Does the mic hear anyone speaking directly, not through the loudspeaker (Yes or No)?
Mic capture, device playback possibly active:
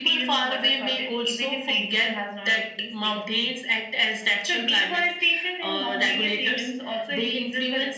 No